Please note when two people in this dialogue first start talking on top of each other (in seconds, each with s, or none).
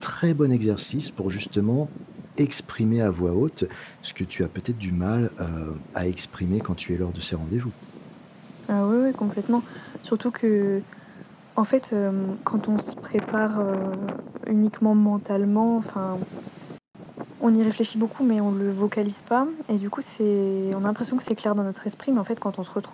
none